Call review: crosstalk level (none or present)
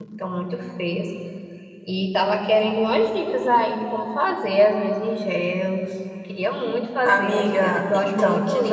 present